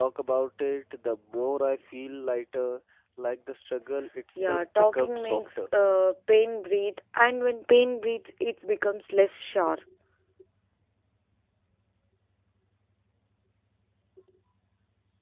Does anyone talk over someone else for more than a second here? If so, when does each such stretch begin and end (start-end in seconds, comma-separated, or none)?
4.4-5.6